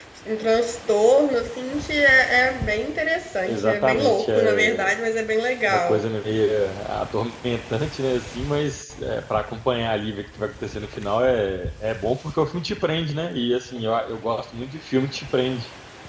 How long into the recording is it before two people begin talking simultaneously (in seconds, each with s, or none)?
3.4 s